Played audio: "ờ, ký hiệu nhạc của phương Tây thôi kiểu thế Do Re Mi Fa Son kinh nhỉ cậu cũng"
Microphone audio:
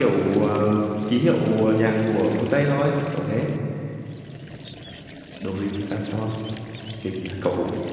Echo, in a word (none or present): present